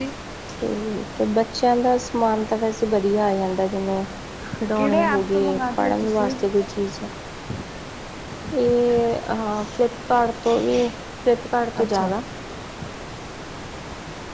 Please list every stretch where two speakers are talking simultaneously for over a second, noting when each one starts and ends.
4.8-6.3

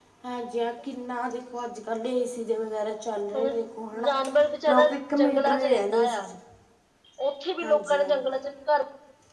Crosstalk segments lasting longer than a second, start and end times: 4.7-6.2

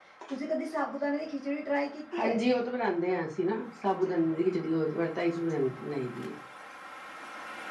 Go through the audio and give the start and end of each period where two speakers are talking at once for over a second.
none

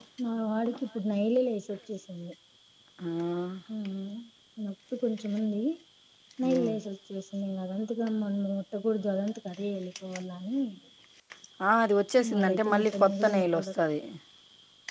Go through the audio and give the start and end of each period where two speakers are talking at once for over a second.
12.3-13.7

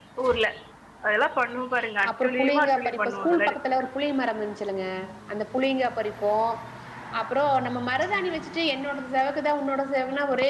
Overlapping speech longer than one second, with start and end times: 2.1-3.7

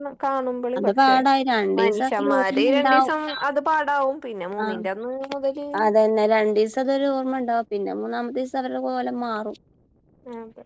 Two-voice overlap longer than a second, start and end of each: 1.8-3.1

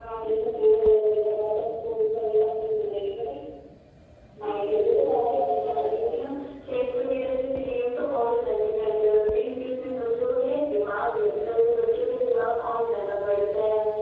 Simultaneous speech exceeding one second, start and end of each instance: 4.5-6.2

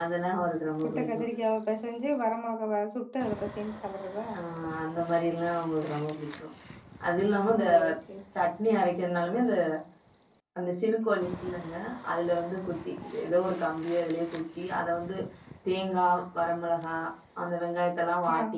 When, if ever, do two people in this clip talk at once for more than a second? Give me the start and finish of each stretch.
none

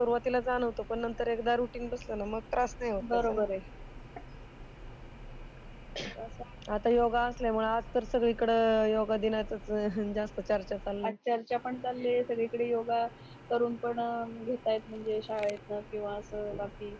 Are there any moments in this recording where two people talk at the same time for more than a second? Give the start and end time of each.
none

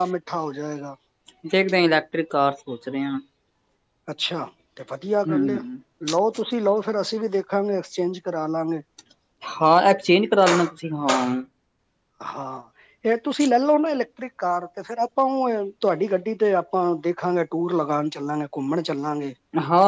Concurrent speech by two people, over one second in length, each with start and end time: none

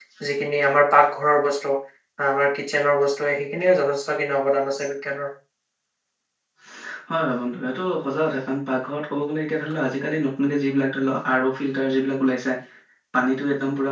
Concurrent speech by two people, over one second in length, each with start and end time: none

